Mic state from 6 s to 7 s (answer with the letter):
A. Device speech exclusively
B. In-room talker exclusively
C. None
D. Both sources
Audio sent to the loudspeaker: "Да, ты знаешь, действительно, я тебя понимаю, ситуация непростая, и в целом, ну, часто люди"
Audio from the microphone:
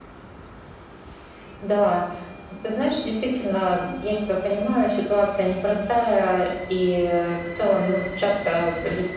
A